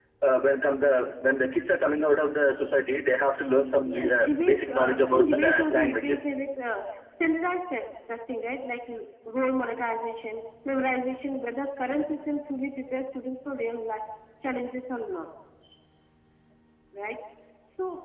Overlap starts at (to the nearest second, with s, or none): 4 s